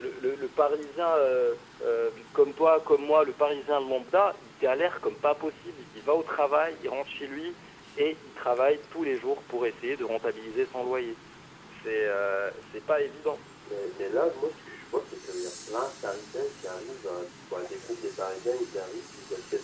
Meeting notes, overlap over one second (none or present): none